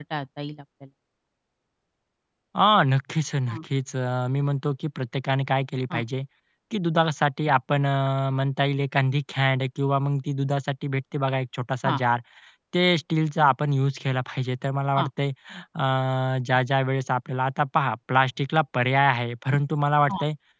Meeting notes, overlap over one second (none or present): none